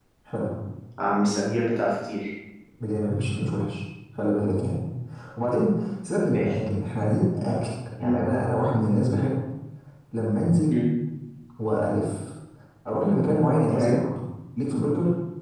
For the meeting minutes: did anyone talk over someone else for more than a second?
No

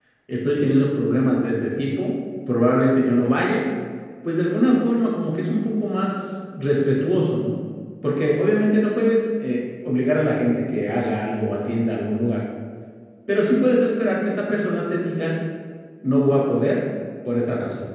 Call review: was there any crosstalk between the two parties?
No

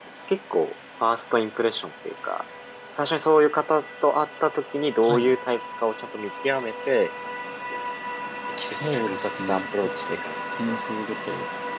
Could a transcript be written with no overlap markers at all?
No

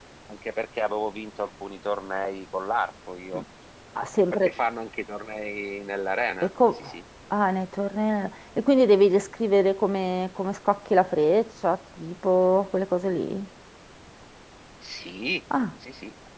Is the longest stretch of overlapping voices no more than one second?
Yes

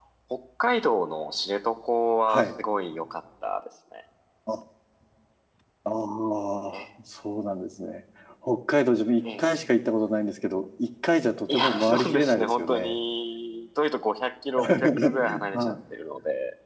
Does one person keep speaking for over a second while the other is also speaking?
Yes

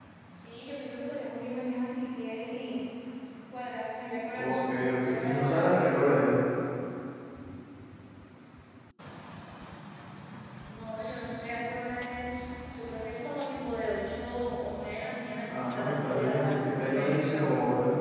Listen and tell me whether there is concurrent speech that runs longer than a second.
Yes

